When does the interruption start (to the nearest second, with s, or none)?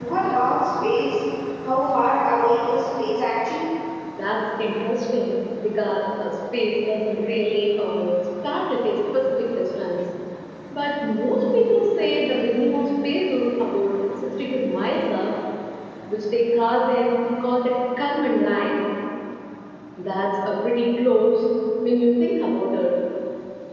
none